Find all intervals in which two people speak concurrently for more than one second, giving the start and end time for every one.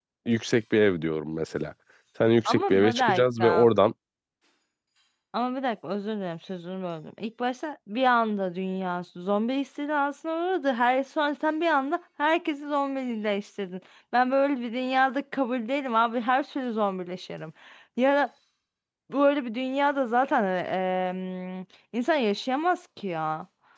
2.5-3.7

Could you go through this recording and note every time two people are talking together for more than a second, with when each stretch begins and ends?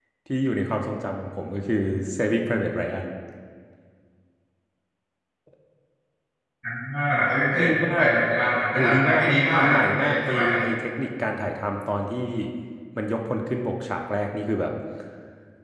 8.7-10.6

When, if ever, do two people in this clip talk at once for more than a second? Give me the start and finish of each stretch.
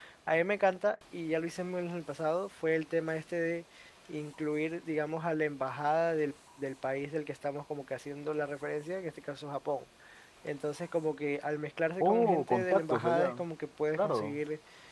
12.0-13.4

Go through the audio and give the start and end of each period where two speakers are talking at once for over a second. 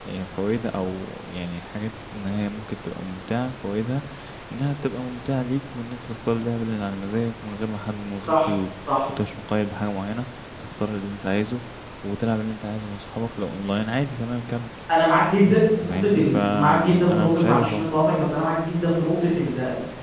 15.4-17.9

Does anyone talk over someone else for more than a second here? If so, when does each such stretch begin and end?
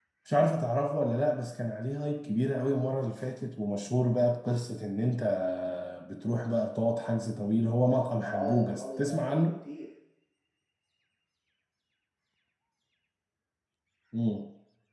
8.2-9.6

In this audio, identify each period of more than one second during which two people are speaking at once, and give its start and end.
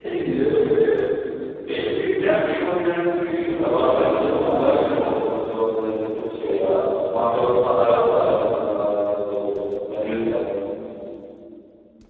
3.6-5.3

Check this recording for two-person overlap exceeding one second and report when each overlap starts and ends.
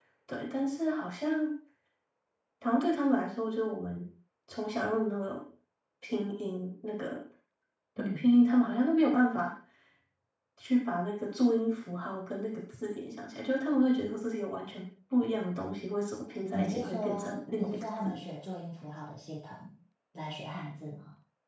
16.5-18.2

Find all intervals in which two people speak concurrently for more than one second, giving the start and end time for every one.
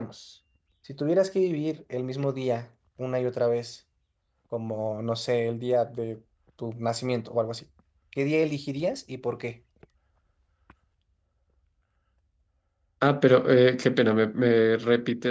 none

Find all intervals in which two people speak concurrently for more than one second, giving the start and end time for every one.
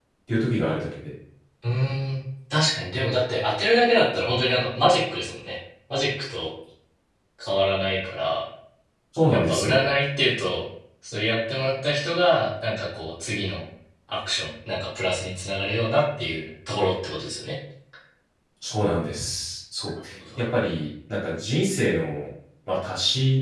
none

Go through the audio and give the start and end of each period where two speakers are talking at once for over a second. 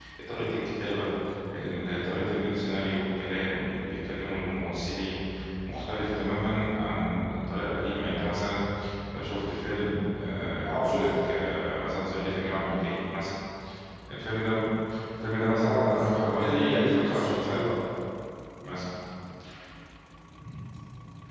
15.6-17.7

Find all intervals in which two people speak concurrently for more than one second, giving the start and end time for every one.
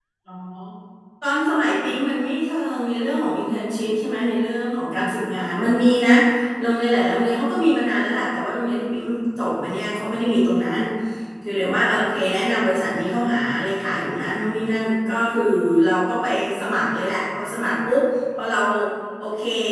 none

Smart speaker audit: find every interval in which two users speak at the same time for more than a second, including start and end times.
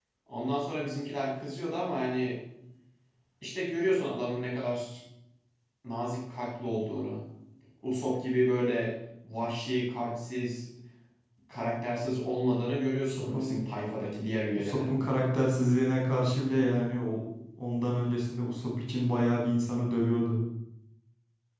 none

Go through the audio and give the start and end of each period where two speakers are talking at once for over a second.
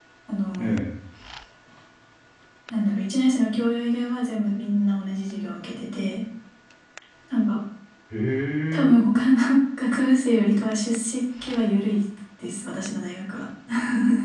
none

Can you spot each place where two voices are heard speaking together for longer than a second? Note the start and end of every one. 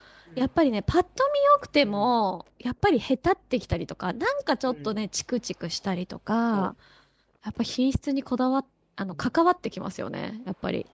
none

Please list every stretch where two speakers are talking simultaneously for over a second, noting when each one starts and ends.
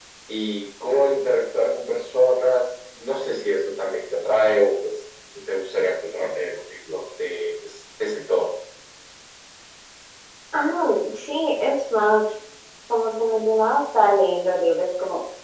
none

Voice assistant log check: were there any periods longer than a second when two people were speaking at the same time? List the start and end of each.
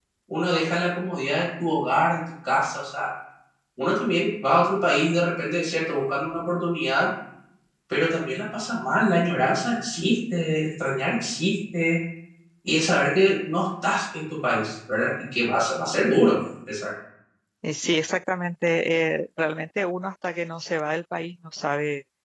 none

